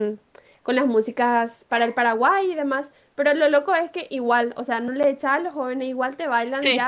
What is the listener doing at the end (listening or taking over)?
listening